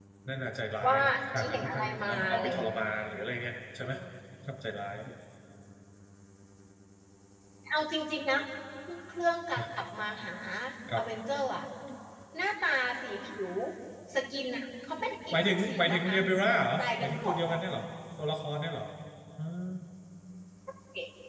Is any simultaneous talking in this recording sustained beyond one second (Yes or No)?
Yes